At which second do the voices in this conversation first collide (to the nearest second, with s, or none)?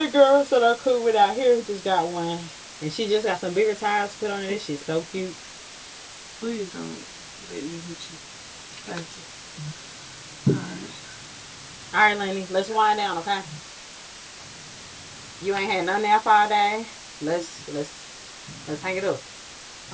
none